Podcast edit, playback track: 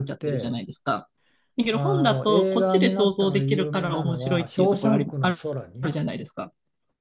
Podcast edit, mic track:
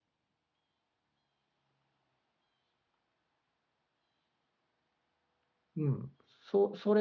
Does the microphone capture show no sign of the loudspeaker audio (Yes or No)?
Yes